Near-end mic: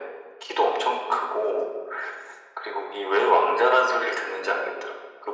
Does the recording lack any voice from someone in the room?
Yes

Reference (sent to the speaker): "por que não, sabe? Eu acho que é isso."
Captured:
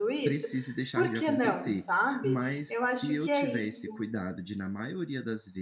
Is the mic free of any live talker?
No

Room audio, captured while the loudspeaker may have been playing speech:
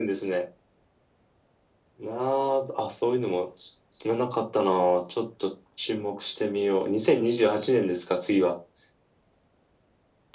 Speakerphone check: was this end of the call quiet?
Yes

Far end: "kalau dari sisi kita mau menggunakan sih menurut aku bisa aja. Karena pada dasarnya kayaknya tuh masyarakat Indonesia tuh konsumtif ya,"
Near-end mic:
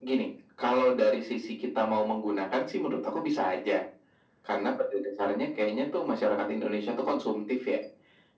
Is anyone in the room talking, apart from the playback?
No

